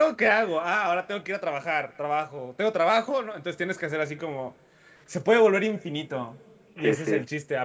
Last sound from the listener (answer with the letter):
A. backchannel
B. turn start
A